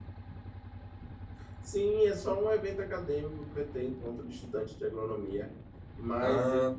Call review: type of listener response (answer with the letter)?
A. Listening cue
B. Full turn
A